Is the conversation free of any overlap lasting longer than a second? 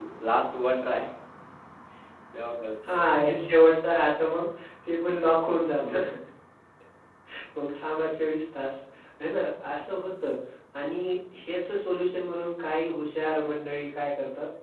Yes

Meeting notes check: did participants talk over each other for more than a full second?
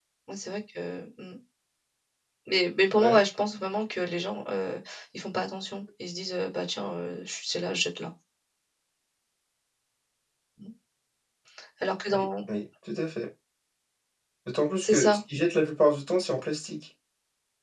No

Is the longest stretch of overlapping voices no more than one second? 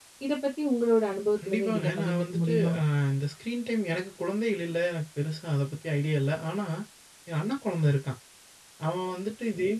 No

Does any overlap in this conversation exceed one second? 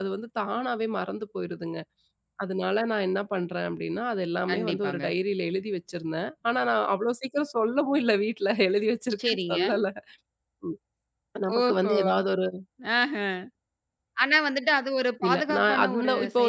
Yes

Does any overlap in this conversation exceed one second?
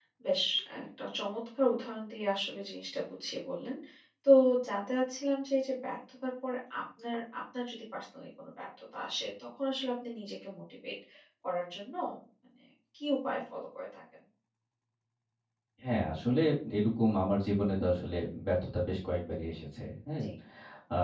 No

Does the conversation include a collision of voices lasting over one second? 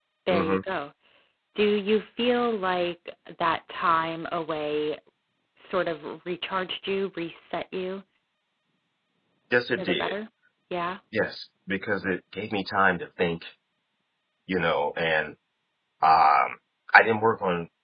No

